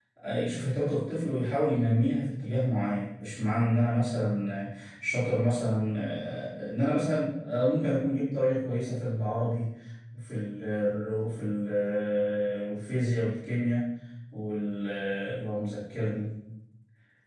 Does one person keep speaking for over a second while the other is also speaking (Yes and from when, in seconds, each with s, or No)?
No